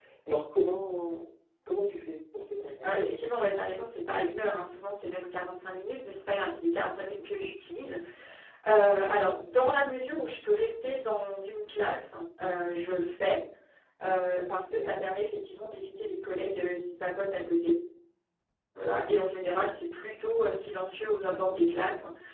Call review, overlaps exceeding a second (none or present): none